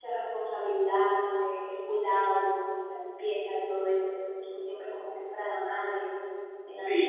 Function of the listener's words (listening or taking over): taking over